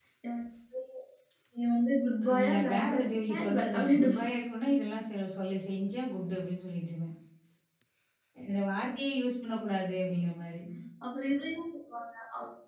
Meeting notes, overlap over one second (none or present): present